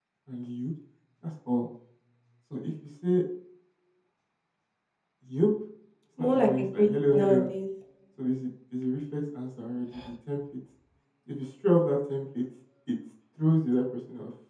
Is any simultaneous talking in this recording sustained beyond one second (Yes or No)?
Yes